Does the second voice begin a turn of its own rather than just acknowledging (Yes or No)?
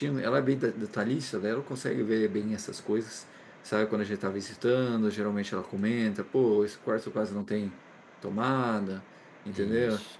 No